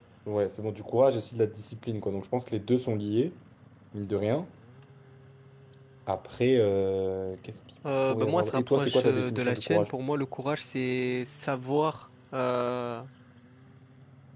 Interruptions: present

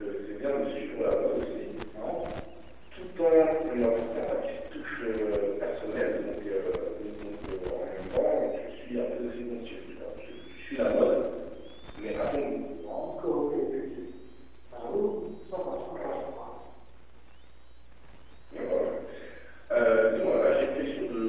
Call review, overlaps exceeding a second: none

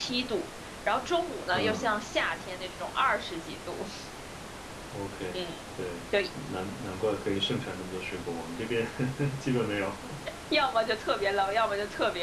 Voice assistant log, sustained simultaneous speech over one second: none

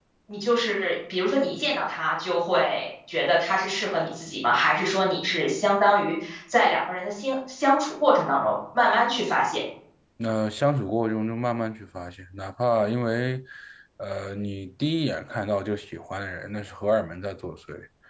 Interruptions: none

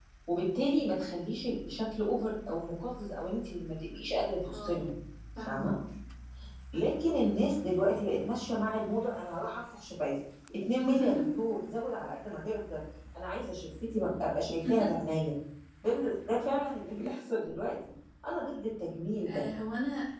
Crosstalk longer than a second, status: none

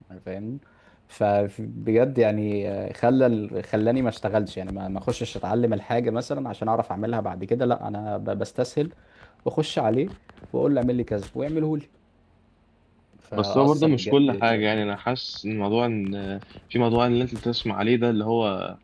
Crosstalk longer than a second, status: present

